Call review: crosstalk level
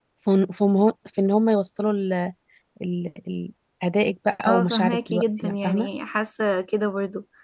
present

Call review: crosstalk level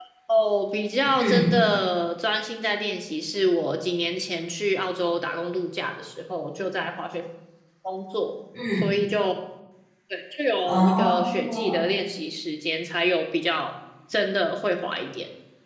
present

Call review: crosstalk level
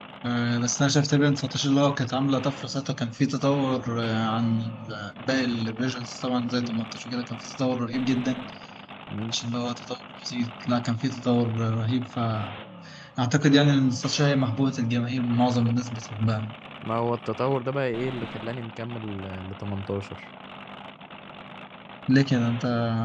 none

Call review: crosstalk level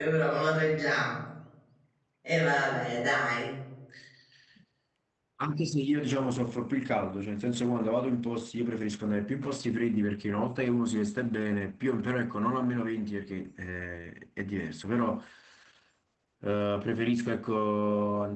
none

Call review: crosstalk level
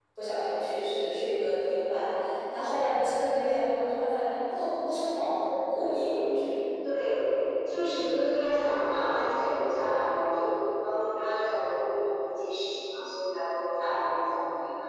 none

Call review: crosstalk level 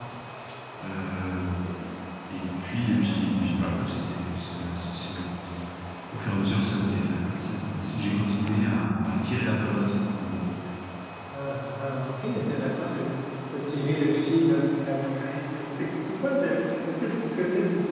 none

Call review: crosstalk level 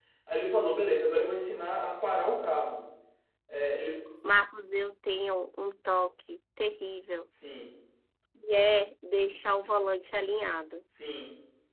none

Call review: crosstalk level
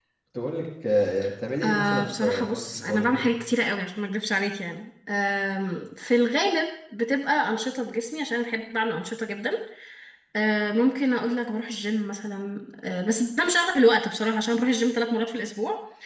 present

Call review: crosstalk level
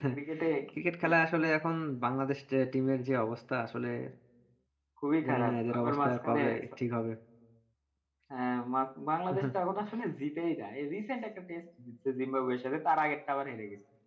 present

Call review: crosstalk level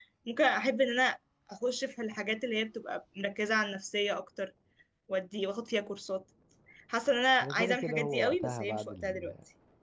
present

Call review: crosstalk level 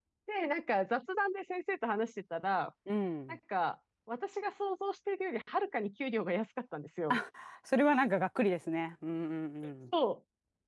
none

